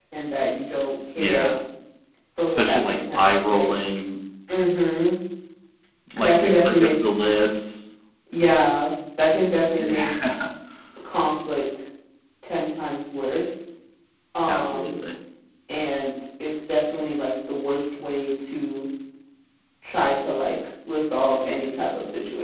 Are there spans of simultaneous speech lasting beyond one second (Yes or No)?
Yes